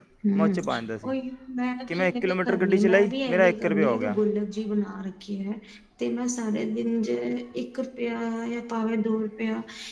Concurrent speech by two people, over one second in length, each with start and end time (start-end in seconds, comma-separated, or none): 1.9-4.2